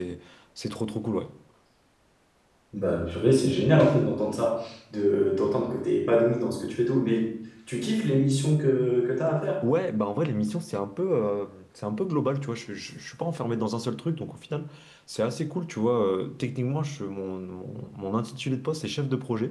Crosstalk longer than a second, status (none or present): none